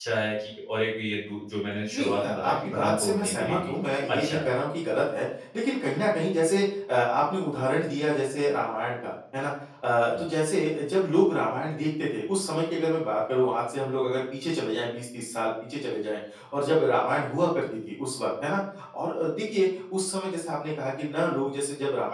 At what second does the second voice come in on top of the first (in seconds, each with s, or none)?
1.9 s